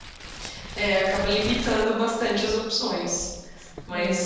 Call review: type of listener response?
listening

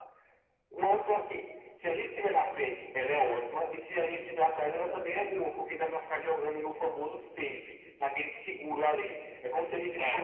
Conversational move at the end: listening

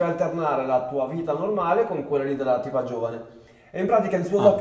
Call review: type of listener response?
listening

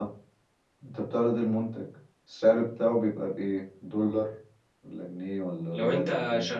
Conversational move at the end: taking over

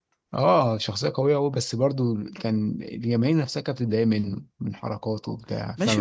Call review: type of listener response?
taking over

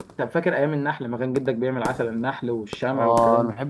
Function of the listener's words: taking over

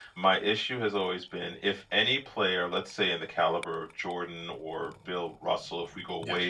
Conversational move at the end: listening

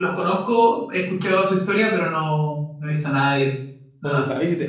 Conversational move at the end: taking over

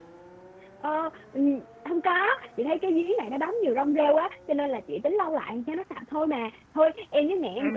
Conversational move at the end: taking over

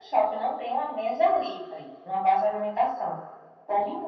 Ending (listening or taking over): listening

